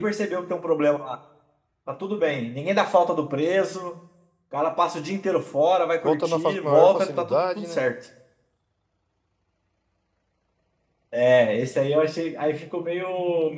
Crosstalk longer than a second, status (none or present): present